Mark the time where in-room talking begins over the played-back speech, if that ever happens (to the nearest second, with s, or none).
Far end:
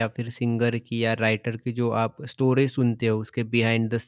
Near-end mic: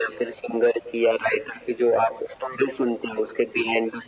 none